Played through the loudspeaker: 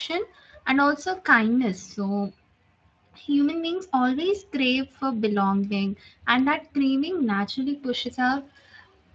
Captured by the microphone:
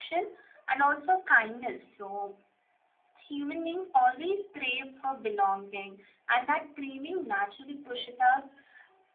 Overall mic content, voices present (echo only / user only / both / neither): echo only